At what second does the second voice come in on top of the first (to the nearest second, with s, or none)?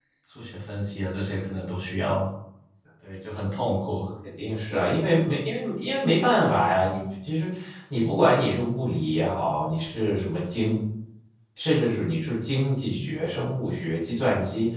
none